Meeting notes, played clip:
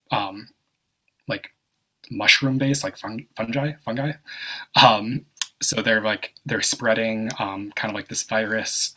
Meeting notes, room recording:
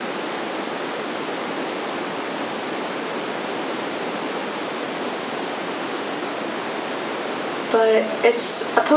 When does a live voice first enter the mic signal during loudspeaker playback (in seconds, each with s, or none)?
7.7 s